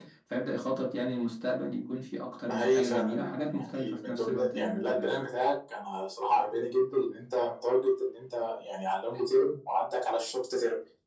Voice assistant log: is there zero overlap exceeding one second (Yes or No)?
No